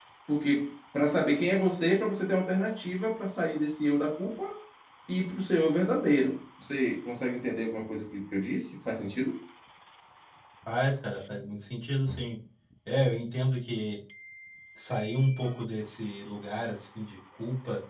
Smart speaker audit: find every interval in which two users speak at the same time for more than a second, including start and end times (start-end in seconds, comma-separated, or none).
none